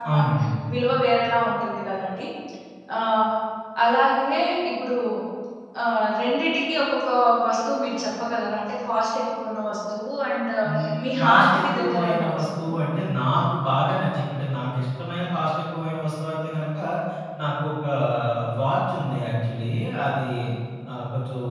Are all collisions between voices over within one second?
No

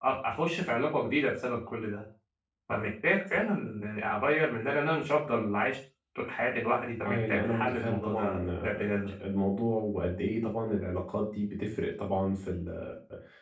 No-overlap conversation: No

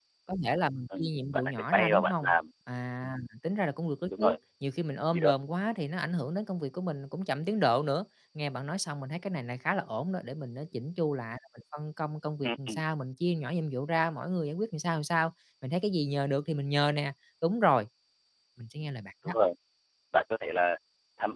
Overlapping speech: Yes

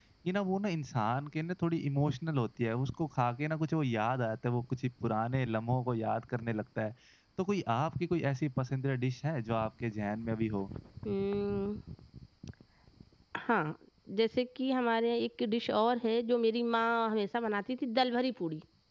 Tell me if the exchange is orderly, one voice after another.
Yes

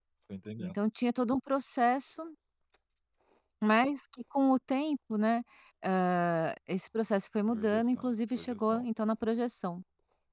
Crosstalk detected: Yes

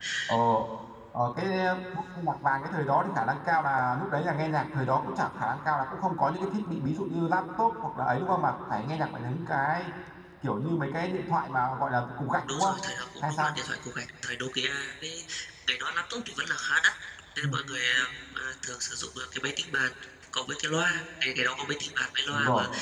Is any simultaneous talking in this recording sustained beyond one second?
No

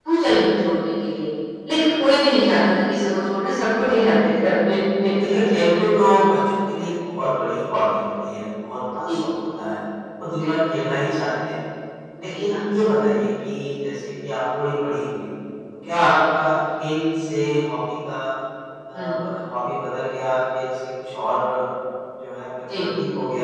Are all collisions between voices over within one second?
Yes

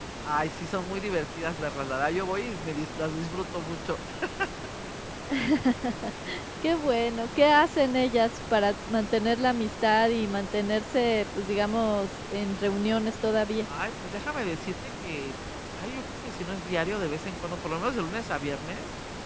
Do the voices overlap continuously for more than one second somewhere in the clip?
No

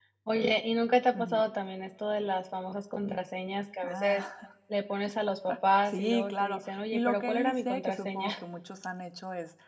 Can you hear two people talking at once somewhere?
Yes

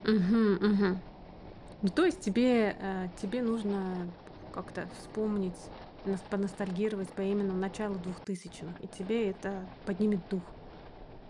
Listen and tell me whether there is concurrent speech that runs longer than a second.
No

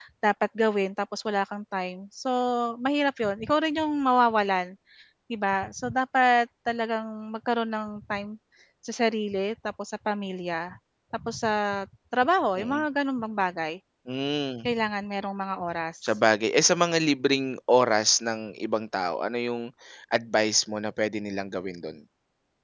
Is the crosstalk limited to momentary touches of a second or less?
Yes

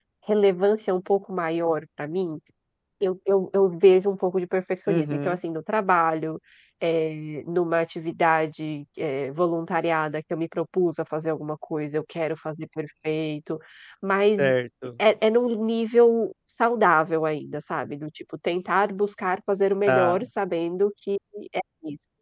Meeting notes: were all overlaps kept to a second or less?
Yes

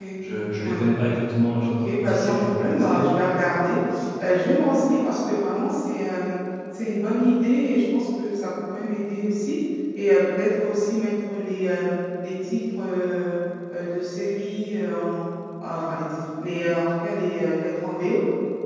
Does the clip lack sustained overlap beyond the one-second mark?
No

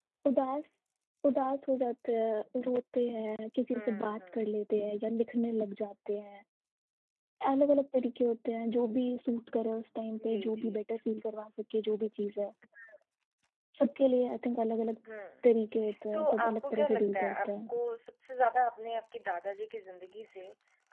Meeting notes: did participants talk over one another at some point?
Yes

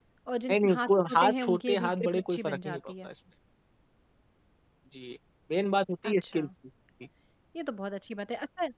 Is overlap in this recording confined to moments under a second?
No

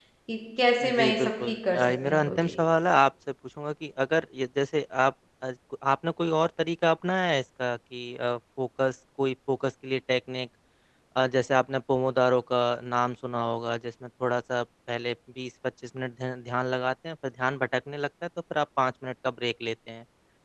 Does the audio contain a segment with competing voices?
Yes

